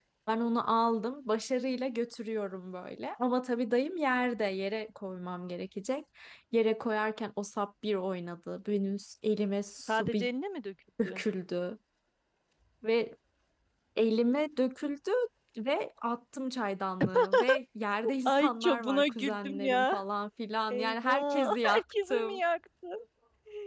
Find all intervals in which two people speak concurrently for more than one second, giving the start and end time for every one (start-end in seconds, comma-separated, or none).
18.2-20.0, 20.7-22.4